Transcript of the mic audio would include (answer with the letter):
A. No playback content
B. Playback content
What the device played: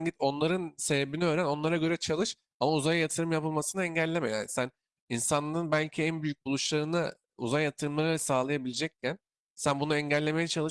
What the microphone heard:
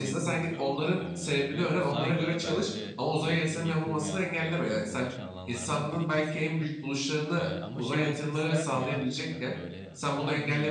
B